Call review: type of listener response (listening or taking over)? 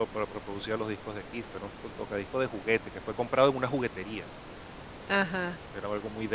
listening